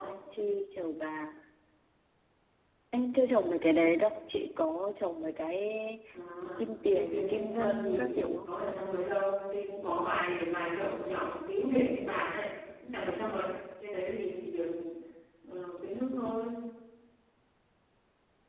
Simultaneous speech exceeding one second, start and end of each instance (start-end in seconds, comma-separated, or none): 6.9-8.5